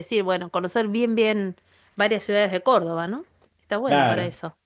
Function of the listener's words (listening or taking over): taking over